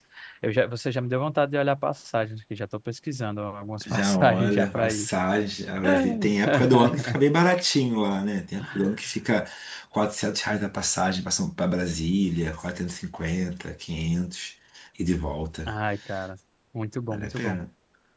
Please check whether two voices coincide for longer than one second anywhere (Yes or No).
Yes